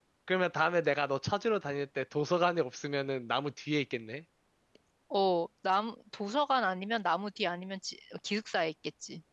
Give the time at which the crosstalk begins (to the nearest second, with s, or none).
none